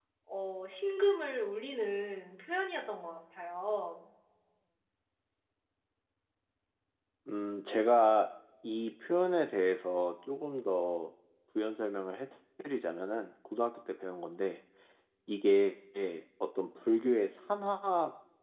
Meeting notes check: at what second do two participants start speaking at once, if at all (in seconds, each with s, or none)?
none